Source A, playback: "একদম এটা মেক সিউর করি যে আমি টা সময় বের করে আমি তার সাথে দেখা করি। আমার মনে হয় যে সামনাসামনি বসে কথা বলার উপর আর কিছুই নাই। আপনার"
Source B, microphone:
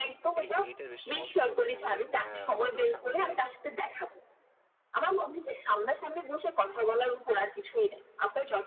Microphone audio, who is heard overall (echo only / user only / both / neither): both